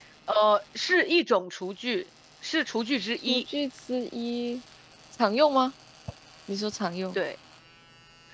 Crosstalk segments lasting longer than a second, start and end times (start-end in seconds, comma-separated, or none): none